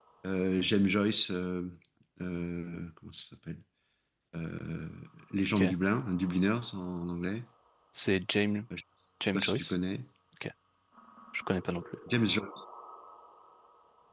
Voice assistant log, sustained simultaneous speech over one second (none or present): none